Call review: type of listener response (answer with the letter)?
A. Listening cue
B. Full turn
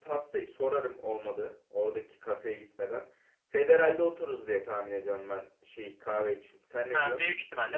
B